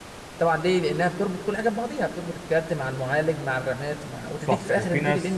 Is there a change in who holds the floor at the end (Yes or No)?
Yes